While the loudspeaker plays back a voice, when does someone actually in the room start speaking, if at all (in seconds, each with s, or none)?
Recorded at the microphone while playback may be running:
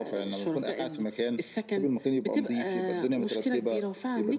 none